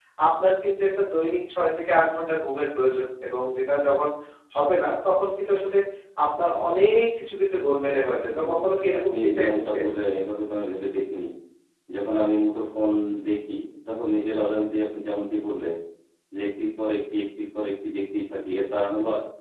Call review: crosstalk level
present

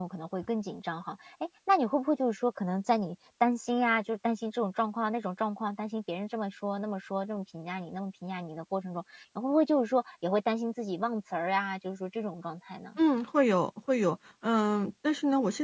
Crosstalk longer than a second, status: none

